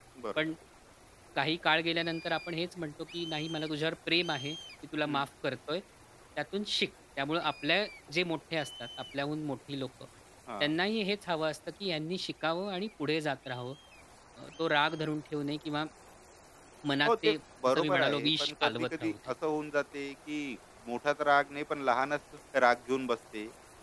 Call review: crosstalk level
present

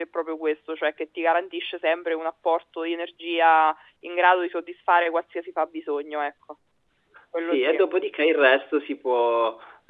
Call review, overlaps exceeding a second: none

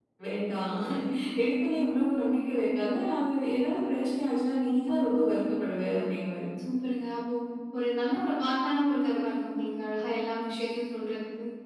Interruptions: none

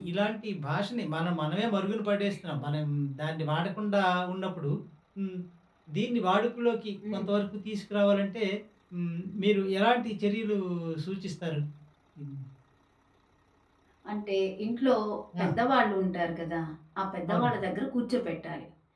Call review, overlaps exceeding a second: none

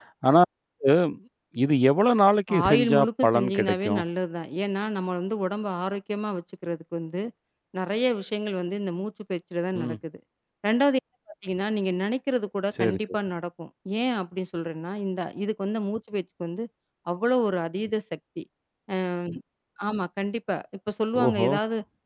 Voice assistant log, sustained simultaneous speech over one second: present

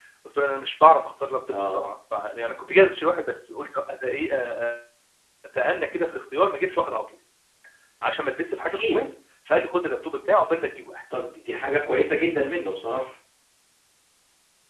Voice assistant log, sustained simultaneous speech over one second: none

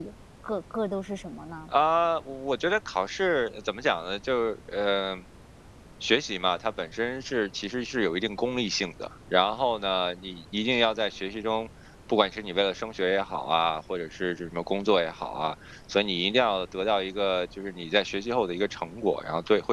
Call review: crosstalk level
none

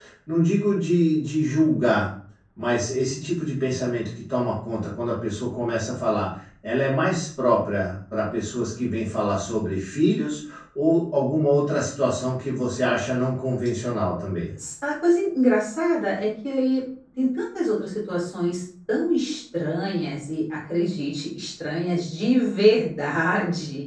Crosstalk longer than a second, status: none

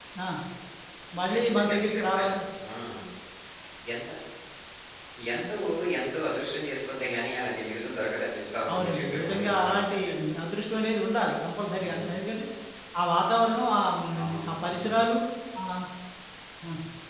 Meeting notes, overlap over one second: present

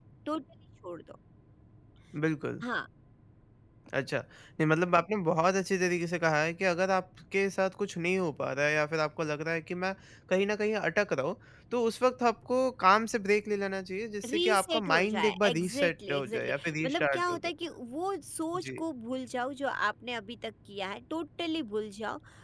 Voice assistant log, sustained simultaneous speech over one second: present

